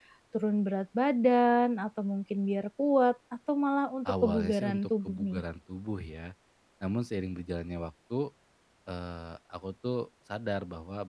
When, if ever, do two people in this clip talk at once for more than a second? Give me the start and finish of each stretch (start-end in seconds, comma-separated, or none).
4.1-5.4